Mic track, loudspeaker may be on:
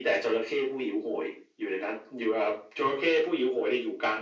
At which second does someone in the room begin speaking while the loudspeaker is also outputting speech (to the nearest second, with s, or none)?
none